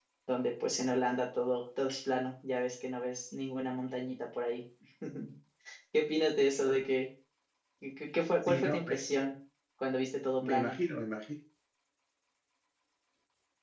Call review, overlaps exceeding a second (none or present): none